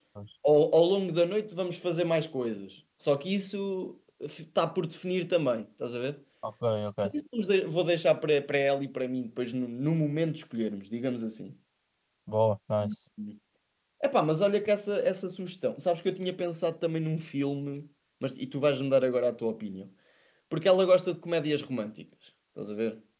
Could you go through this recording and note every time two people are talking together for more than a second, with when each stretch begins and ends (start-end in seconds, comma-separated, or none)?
none